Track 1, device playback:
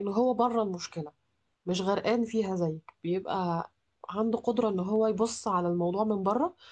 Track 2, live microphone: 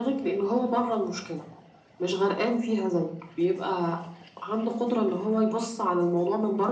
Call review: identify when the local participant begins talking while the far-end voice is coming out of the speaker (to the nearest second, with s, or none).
none